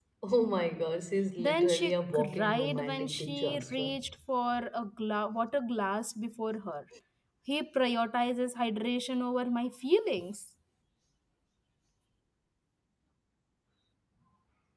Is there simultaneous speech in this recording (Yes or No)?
Yes